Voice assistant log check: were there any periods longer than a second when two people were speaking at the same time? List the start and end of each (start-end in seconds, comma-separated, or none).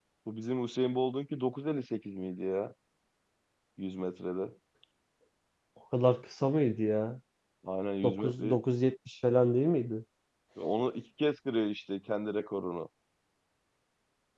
none